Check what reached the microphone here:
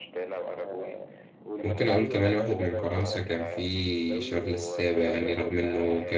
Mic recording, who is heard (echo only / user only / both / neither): both